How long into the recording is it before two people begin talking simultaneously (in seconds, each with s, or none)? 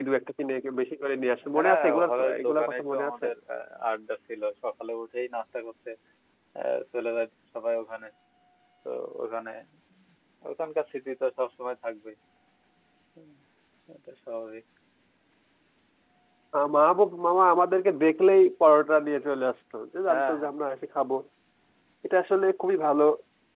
1.5 s